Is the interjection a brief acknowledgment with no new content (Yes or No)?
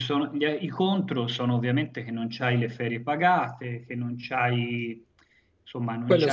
Yes